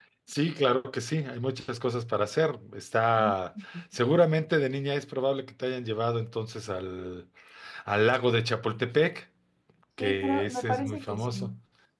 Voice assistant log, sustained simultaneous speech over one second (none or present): present